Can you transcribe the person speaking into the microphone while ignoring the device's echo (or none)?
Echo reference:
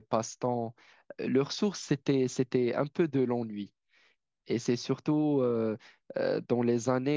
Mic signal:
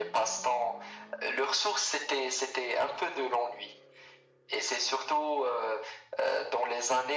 none